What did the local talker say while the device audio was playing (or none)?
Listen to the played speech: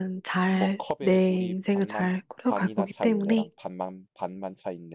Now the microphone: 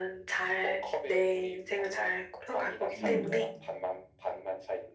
음,